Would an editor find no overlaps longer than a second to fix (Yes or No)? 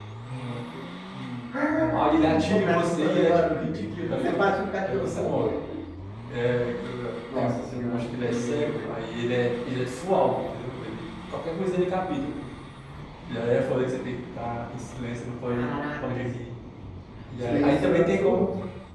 No